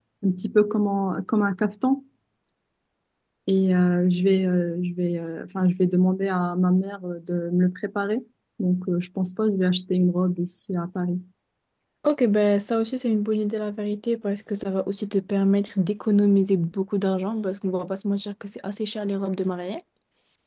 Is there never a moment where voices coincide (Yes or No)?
Yes